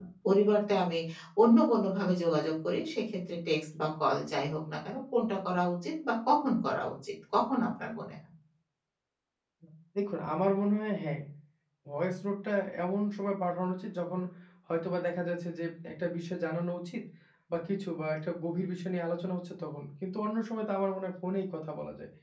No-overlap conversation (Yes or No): Yes